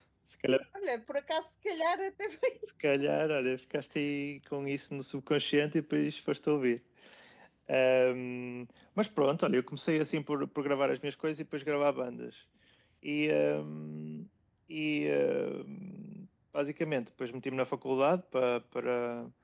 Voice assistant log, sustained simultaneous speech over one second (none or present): none